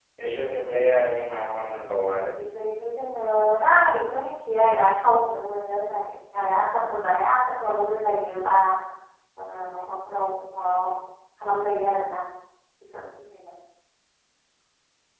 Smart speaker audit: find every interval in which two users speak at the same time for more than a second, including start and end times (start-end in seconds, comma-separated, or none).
none